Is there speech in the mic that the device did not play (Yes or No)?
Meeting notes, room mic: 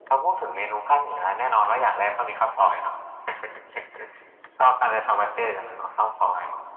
No